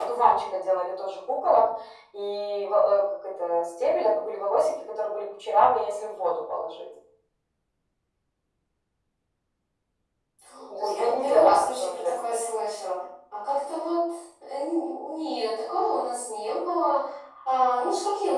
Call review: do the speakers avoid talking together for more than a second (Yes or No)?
No